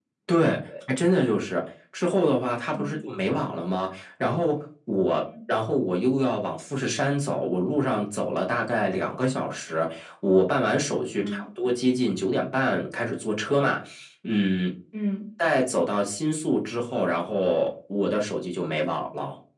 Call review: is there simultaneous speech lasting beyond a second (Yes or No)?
No